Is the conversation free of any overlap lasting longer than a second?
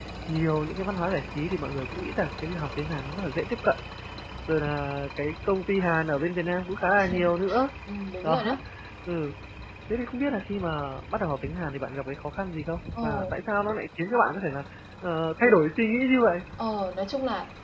Yes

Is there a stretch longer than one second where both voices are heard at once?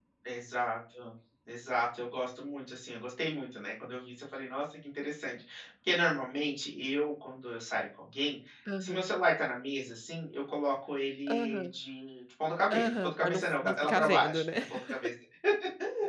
Yes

